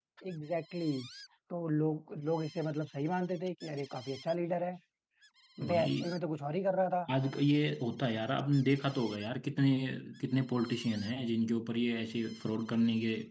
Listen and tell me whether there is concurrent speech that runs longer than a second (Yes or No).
No